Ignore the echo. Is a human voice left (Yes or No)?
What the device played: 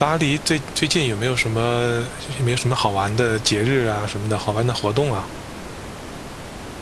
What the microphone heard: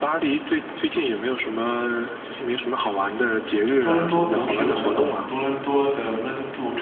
Yes